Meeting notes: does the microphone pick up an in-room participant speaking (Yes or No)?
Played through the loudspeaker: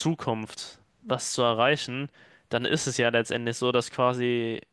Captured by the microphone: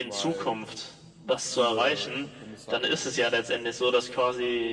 Yes